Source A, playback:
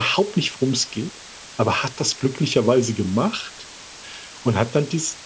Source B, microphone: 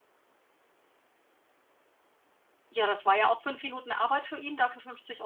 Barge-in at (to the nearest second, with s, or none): 3 s